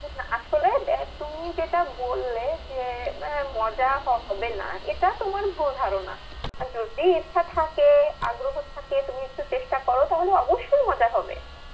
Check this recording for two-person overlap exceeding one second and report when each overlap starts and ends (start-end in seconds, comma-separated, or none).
none